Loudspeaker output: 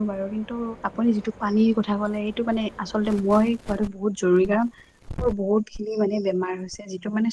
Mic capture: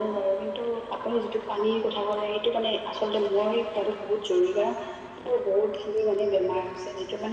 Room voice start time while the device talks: none

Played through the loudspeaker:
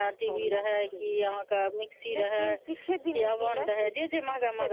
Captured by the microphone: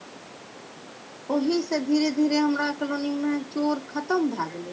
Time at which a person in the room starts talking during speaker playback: 1.4 s

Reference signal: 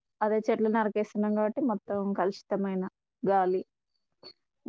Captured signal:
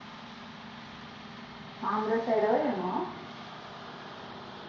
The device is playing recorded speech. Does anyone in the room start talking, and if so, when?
1.9 s

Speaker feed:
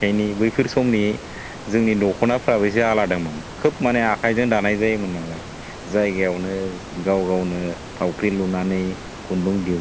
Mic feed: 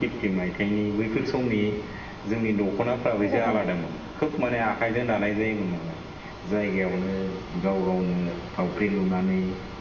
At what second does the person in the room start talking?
3.2 s

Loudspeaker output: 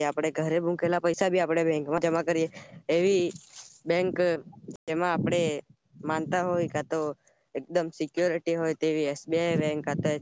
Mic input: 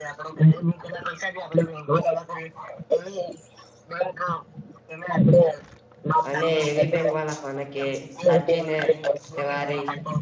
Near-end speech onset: 6.3 s

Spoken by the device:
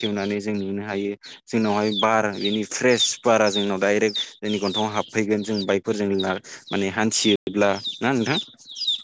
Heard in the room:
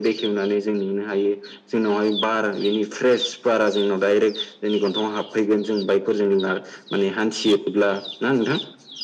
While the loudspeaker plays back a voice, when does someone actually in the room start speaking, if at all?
none

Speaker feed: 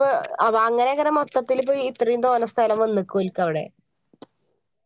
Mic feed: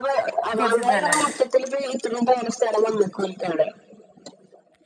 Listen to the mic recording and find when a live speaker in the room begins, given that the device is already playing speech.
0.6 s

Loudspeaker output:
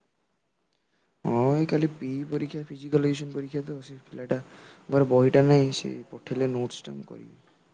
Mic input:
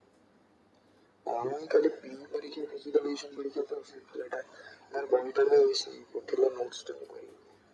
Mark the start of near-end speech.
none

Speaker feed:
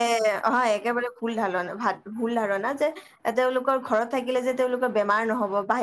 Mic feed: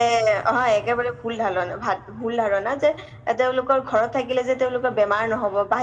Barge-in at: none

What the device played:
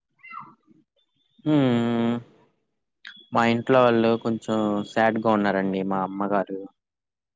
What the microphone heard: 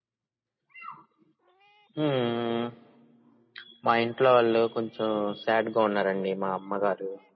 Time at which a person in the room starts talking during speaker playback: none

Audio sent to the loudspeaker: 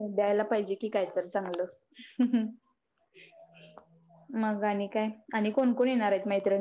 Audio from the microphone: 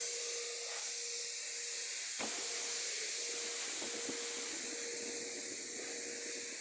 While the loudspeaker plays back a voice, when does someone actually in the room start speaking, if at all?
none

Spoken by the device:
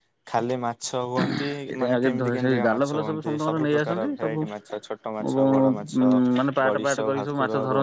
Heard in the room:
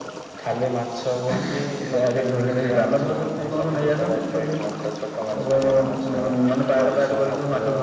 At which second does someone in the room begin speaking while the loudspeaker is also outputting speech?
none

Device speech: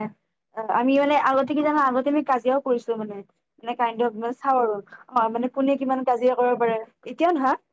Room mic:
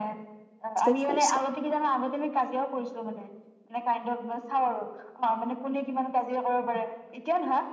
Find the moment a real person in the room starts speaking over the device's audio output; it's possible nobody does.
0.8 s

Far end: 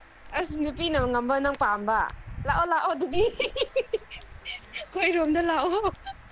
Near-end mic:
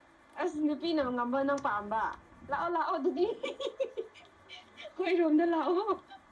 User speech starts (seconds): none

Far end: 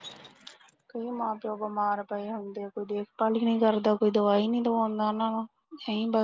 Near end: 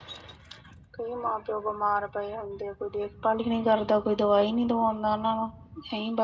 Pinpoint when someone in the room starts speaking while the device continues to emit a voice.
none

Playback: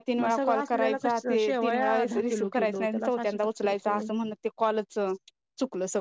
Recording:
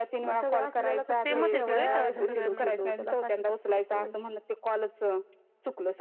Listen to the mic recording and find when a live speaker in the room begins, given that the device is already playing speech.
1.2 s

